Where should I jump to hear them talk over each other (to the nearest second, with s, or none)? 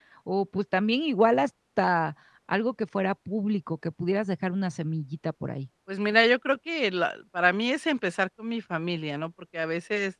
none